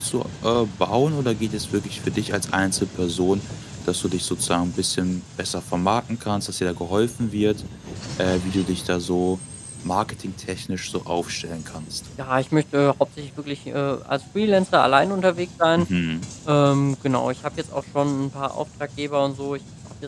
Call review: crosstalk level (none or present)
none